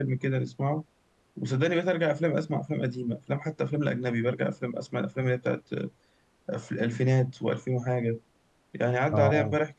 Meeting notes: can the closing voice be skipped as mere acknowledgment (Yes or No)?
Yes